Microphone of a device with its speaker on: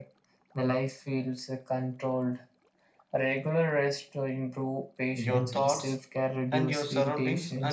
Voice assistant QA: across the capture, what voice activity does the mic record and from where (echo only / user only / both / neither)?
both